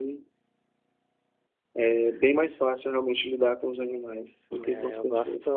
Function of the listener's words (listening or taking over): taking over